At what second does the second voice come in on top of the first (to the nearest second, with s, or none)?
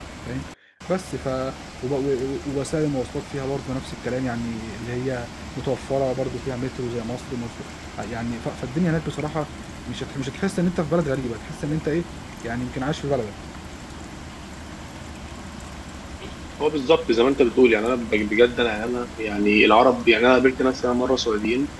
none